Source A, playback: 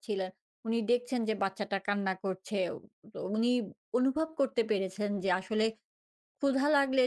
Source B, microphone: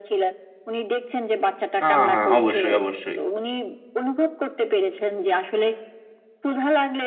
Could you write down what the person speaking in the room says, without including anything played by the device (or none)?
আ হ্যাঁ, অবশ্যই, অবশ্যই।